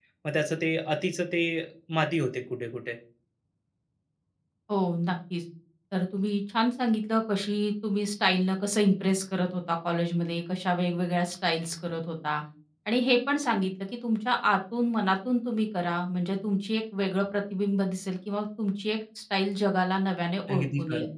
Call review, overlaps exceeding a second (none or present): none